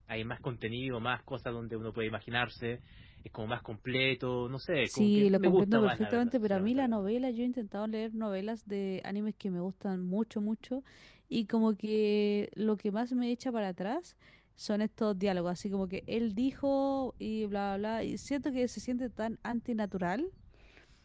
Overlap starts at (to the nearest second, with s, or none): 5 s